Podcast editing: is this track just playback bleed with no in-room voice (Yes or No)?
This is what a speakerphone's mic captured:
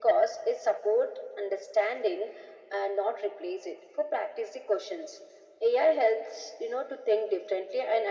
Yes